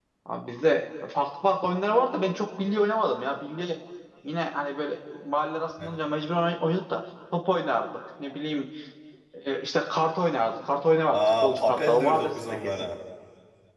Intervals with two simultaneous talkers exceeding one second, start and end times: 11.1-12.9

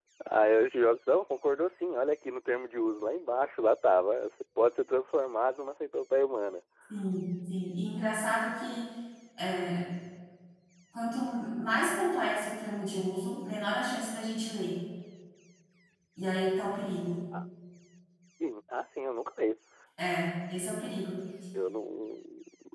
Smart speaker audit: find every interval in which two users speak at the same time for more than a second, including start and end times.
none

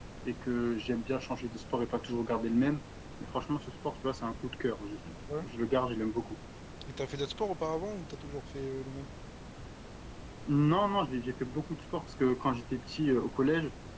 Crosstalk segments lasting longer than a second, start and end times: none

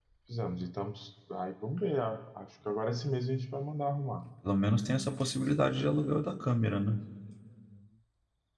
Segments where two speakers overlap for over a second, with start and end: none

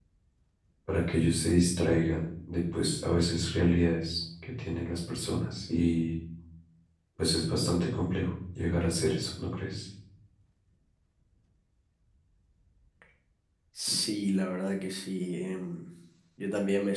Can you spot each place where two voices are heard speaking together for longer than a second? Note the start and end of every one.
none

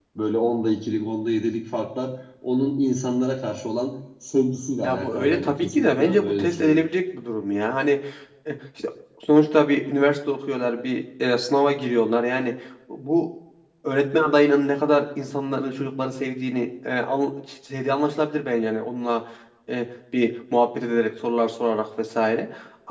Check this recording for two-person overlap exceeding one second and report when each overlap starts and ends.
4.8-6.9

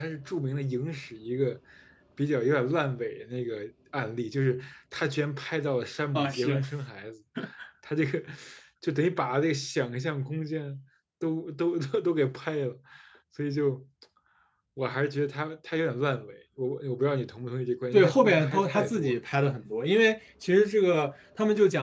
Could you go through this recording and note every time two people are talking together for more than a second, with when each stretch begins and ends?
17.9-19.2

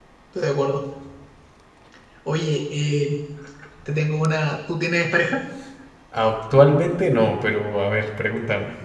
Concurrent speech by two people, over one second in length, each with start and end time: none

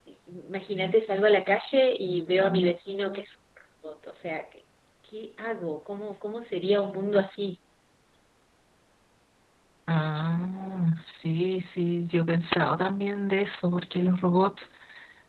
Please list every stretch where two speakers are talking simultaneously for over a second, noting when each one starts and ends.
none

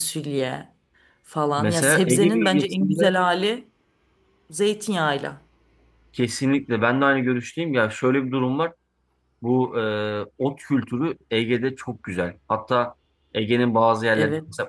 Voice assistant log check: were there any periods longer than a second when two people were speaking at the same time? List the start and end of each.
1.6-3.1

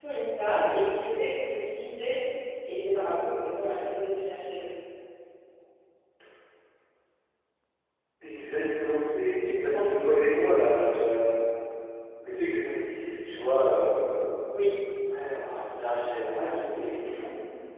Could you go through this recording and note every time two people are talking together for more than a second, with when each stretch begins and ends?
none

